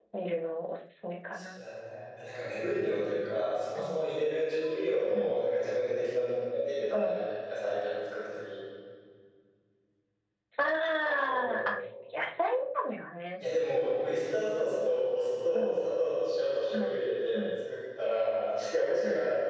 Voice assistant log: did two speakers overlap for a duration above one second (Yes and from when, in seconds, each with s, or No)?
No